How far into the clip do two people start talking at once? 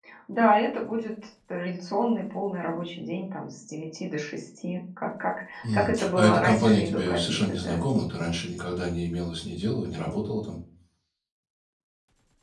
5.6 s

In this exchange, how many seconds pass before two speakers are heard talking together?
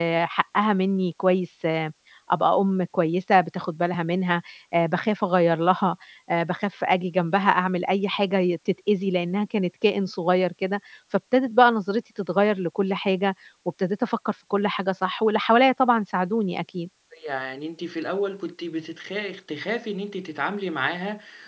none

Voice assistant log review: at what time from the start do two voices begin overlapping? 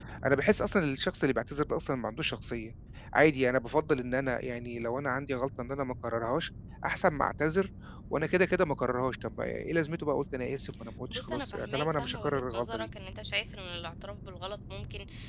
11.1 s

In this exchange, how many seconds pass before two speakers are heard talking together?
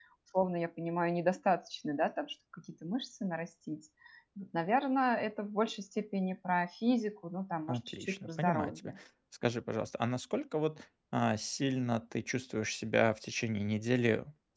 7.7 s

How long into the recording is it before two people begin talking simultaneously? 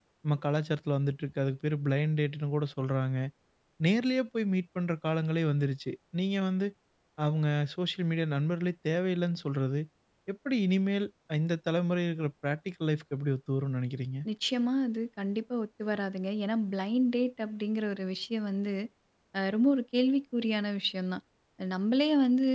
none

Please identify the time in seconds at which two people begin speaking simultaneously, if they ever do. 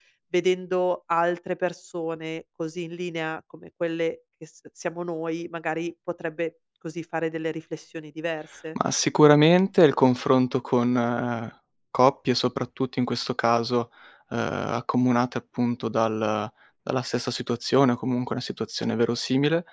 none

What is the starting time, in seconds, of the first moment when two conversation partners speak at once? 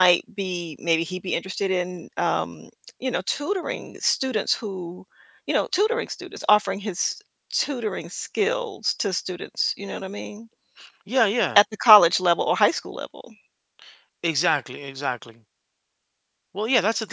none

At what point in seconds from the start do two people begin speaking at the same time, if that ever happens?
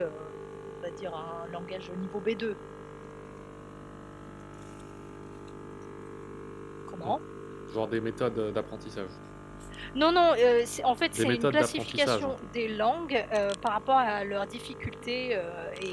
11.1 s

